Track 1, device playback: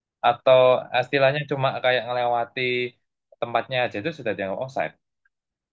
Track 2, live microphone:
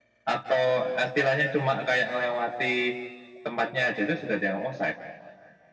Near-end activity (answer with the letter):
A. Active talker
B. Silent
B